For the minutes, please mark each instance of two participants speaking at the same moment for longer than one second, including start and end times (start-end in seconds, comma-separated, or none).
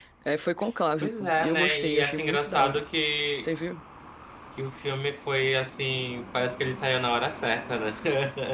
1.0-2.8